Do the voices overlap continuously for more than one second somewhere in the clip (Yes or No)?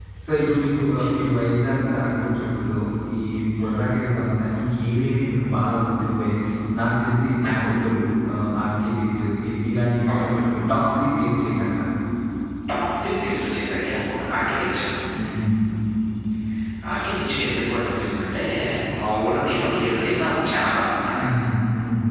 No